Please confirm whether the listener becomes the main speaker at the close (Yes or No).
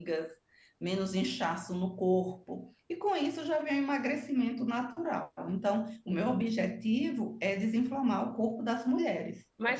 Yes